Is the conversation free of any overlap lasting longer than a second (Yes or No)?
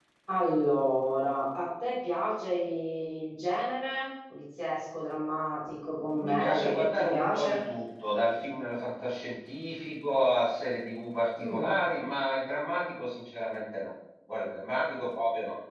No